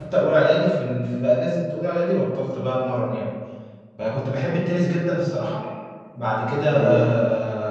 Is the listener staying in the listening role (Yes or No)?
Yes